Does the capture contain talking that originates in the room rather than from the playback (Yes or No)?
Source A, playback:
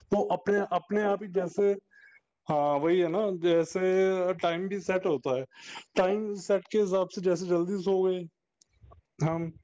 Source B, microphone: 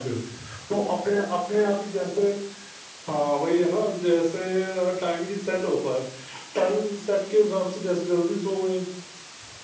No